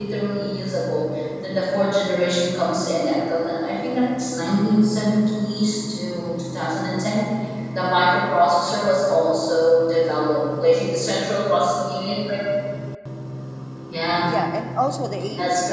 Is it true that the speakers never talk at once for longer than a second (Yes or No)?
Yes